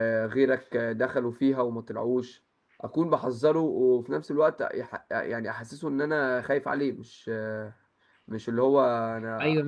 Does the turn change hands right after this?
Yes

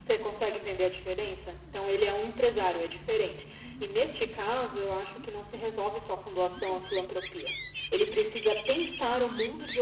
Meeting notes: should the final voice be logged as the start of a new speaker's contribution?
No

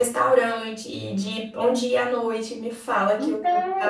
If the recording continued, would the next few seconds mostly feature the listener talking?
Yes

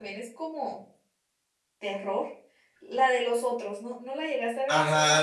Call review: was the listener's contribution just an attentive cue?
No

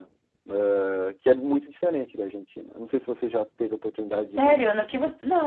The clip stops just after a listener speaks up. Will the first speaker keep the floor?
No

